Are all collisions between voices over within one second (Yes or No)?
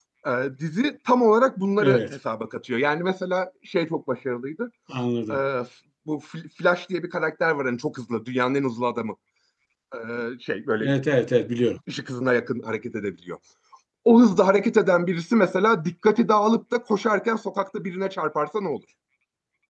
Yes